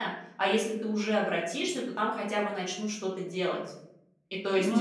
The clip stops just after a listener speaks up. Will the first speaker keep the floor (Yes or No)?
Yes